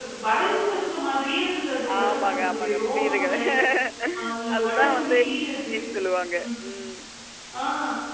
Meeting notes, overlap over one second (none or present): present